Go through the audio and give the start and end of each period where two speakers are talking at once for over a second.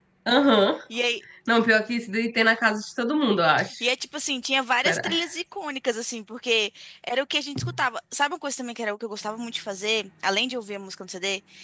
none

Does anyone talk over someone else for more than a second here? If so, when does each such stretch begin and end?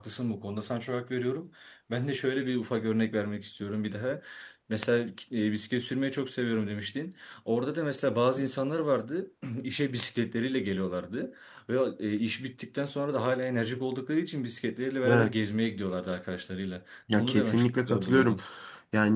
17.1-18.4

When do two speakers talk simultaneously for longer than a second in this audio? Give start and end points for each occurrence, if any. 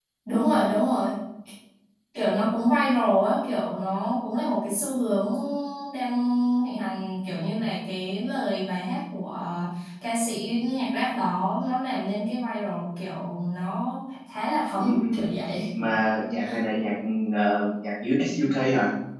none

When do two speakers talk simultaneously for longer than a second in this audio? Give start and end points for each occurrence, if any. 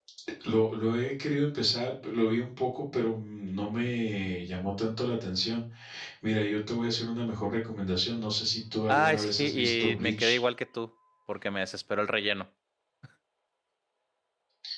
8.9-10.4

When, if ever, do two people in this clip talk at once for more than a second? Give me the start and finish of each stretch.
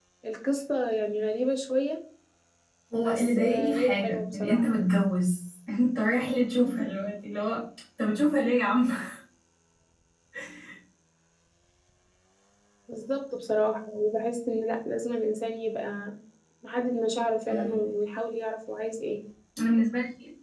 3.0-4.7

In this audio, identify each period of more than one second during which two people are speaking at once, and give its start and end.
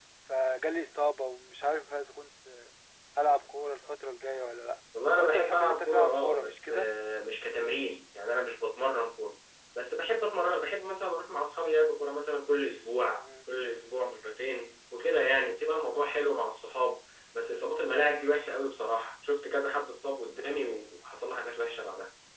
5.2-6.6

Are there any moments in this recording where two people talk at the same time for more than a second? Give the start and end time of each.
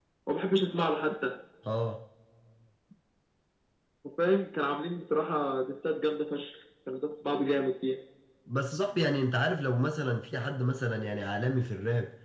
none

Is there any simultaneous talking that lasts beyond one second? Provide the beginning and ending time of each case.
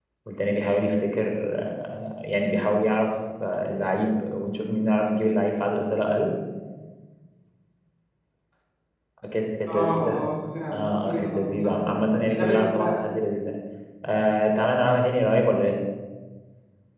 10.7-13.1

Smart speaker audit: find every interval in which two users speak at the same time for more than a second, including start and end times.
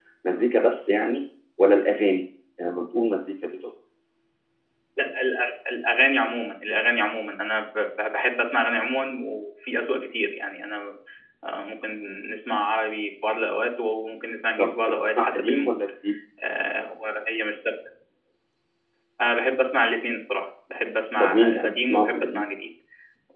14.6-15.8, 21.2-22.4

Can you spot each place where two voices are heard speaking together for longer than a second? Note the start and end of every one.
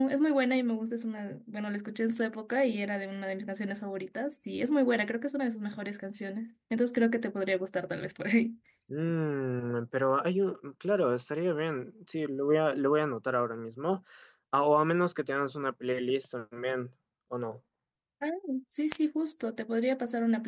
none

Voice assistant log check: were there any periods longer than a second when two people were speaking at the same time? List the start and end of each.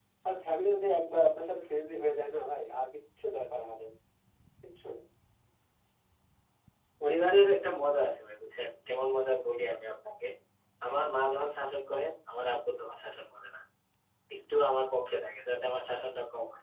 none

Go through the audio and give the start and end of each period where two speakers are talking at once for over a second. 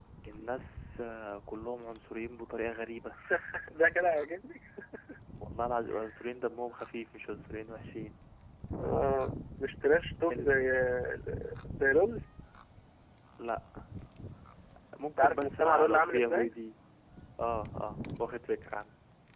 15.2-16.5

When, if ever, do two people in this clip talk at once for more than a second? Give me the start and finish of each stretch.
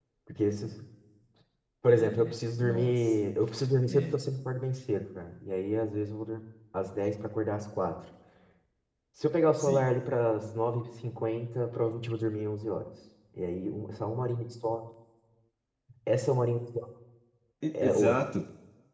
1.9-3.1

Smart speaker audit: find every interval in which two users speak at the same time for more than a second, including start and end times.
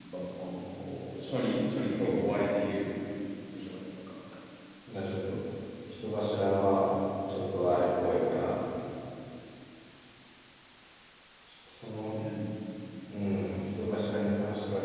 none

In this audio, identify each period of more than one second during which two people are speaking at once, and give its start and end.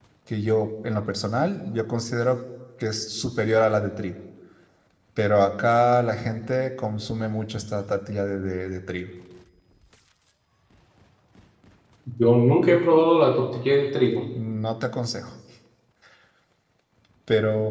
none

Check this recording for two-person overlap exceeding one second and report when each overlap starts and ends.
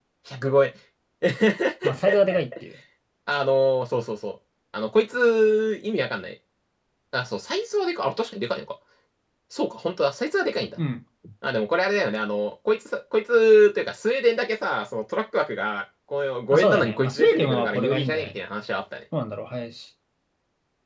16.5-18.4

